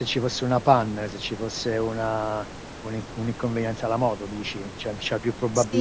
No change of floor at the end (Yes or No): No